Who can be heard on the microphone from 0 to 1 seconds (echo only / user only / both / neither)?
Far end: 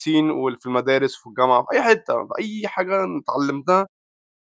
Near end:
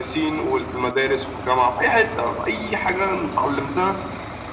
echo only